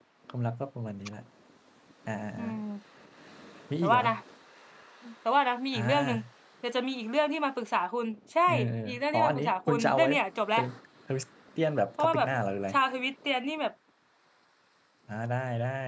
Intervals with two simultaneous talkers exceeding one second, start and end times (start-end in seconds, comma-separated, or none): 8.8-10.1